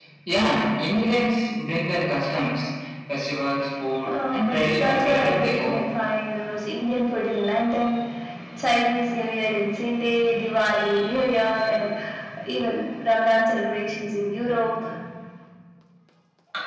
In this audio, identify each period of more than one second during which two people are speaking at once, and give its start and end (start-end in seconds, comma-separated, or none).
4.1-5.9